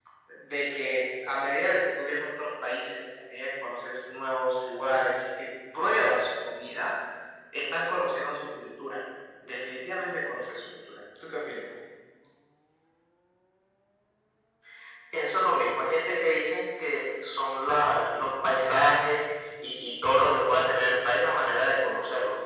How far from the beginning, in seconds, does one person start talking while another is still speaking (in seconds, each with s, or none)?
none